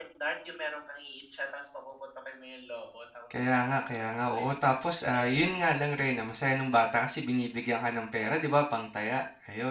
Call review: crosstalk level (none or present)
present